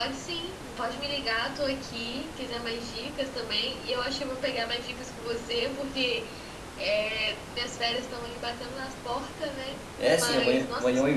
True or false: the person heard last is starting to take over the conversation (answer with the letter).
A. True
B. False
A